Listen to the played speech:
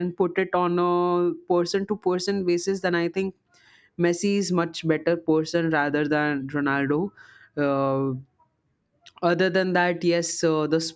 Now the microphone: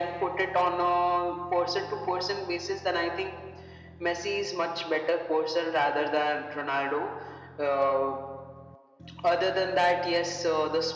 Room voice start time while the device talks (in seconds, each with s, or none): none